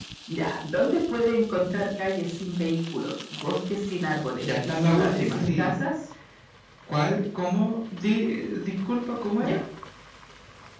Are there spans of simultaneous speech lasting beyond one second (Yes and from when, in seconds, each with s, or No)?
Yes, from 4.4 s